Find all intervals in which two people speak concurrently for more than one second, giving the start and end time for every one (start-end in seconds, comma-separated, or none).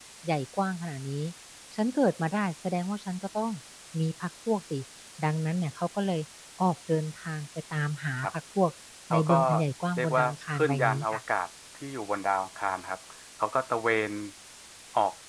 10.0-11.2